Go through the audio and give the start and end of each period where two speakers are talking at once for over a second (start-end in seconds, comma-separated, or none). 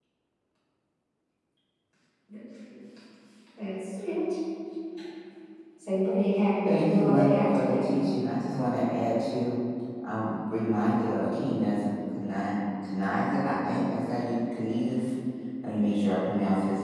6.6-7.9